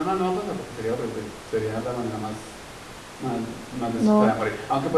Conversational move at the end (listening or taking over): listening